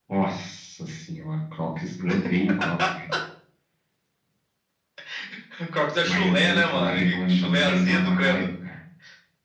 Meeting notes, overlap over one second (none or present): present